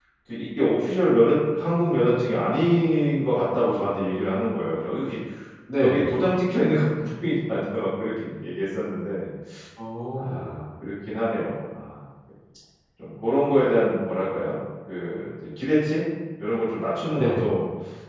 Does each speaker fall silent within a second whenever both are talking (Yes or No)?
Yes